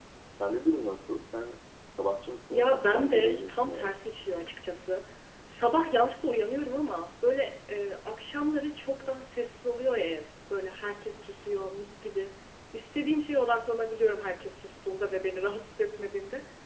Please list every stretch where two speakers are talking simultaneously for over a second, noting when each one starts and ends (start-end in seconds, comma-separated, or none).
2.5-3.9